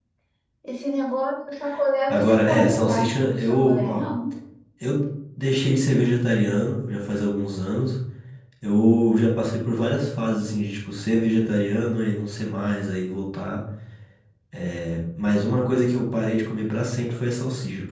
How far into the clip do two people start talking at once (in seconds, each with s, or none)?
2.1 s